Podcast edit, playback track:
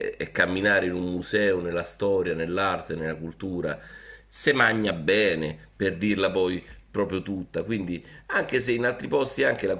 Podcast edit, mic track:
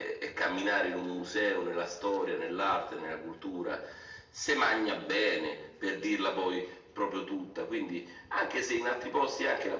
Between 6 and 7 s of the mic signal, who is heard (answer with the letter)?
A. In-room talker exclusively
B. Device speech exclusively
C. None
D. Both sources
B